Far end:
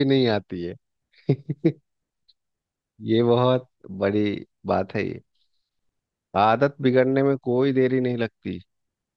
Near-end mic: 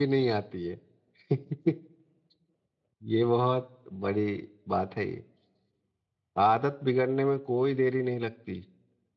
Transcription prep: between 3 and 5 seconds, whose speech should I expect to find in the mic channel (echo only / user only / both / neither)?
echo only